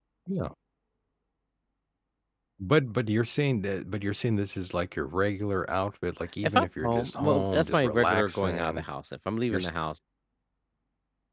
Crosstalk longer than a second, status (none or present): present